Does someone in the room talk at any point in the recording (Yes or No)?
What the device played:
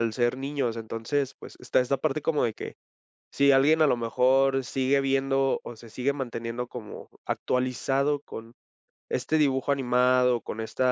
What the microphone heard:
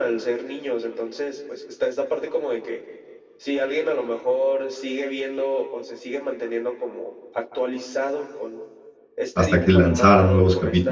Yes